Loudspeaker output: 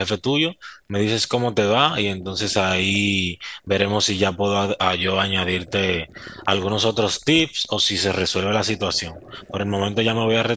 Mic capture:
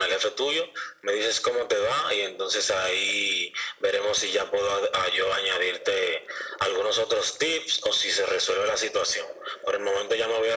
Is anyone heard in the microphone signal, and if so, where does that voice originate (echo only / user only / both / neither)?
echo only